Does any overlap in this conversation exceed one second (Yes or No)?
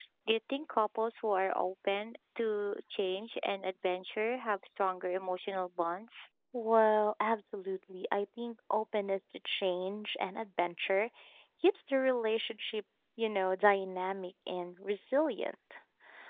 No